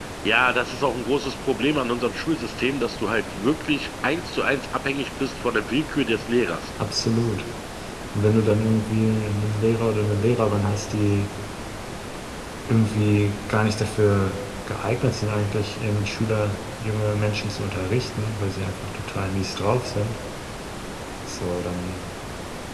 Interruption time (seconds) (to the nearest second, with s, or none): none